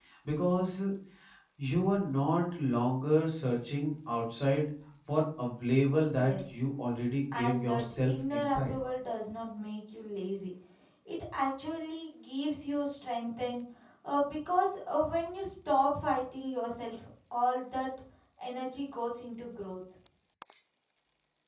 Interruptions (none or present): present